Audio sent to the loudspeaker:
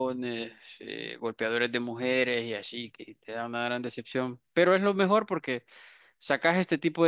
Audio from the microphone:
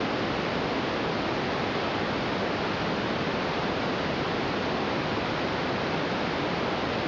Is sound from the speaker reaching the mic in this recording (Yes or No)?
No